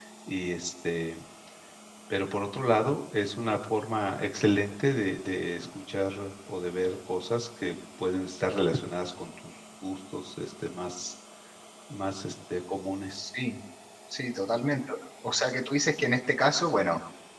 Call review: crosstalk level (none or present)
none